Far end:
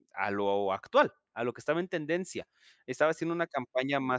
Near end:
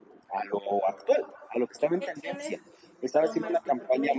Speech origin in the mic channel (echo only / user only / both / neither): both